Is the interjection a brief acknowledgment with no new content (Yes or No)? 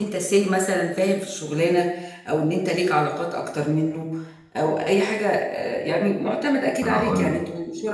Yes